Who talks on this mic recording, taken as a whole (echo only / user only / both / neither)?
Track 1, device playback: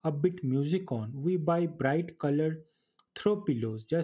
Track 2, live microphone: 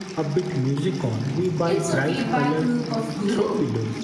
both